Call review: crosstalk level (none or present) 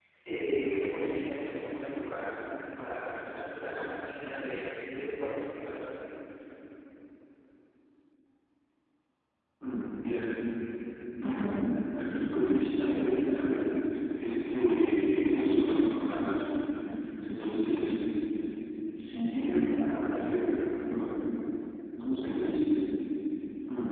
none